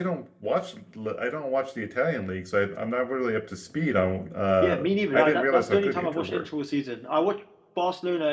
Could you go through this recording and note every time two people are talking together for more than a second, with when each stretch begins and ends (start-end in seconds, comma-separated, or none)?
4.6-6.4